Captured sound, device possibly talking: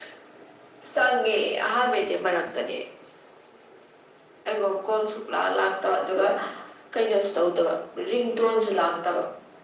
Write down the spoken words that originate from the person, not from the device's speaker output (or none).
none